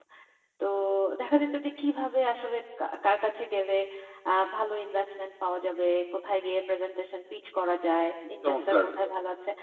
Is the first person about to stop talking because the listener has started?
No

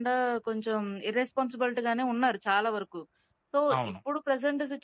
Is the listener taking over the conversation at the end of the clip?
No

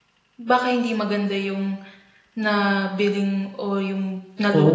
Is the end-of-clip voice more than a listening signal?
Yes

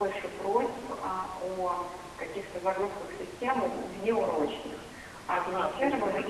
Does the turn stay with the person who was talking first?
No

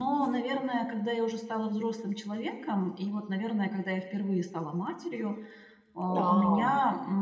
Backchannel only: Yes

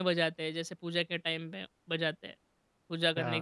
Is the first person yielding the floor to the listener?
Yes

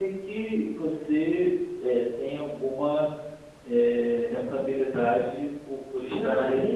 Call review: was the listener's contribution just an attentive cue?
No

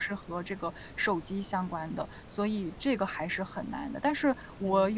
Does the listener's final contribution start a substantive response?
No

